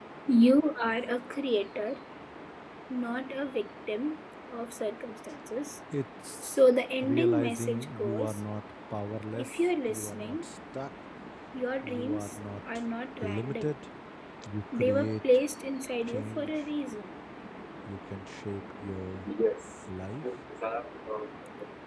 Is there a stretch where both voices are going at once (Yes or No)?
Yes